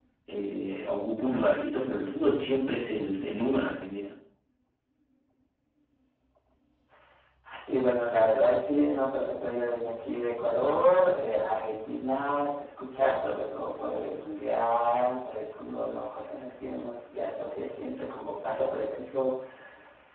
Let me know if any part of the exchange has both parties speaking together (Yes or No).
No